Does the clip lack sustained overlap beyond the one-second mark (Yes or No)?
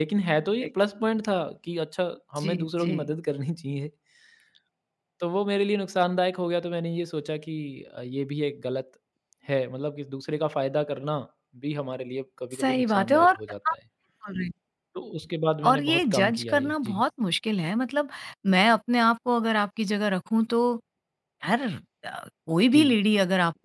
No